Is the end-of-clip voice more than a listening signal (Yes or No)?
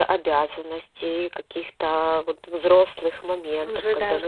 Yes